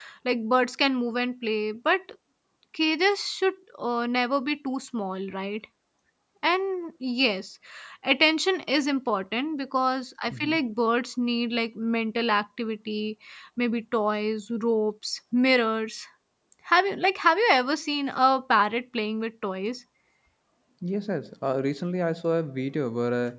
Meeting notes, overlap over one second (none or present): none